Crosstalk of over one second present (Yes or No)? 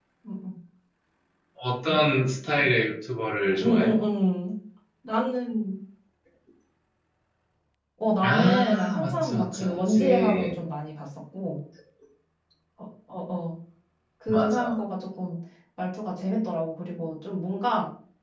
Yes